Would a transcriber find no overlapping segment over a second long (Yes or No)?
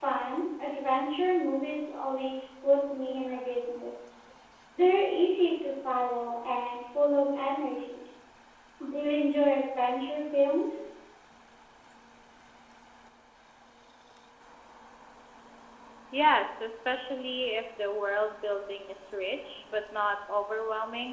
Yes